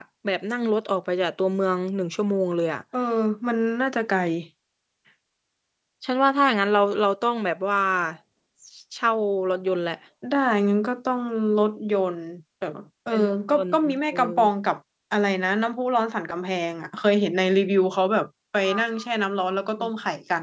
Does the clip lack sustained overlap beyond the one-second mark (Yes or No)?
No